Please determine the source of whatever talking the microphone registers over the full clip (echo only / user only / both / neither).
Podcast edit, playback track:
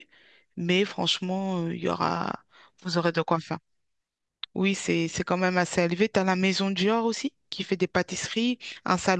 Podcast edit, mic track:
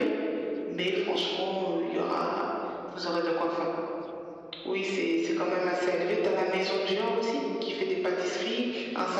echo only